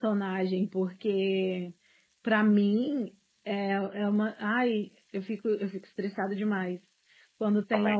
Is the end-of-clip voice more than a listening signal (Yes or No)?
No